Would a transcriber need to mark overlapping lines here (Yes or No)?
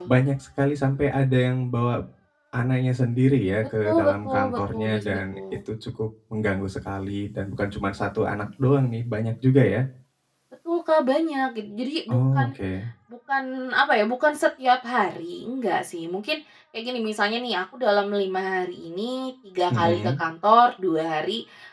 Yes